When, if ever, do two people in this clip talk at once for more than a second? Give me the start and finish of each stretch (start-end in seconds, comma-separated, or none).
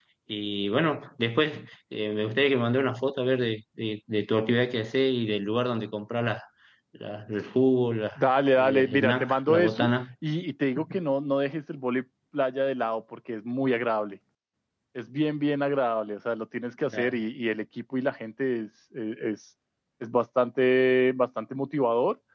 8.6-9.9